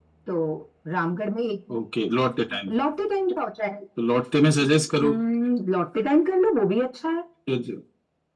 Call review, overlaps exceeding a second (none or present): none